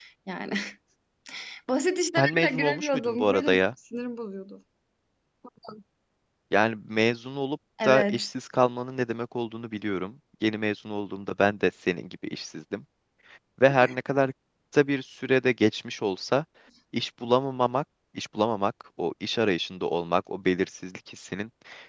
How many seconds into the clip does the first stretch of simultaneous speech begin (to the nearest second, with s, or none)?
2 s